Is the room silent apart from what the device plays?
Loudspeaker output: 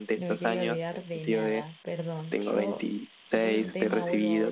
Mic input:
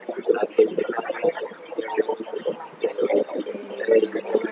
No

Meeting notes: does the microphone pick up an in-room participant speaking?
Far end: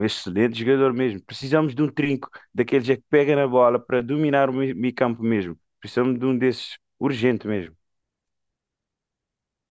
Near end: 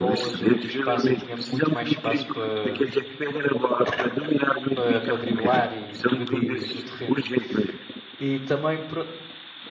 Yes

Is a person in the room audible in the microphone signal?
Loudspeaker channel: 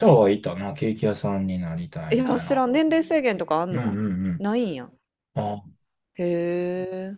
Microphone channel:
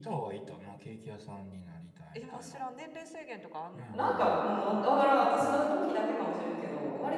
Yes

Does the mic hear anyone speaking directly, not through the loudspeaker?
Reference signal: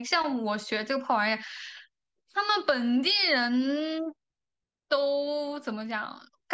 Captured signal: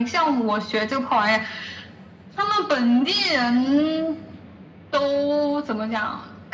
No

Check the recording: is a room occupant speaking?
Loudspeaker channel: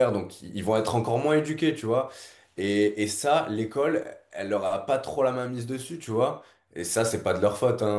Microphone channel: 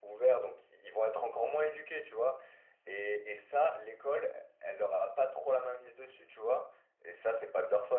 No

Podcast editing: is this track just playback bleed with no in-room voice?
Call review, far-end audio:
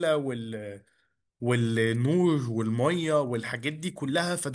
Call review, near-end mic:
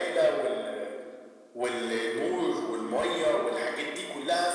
Yes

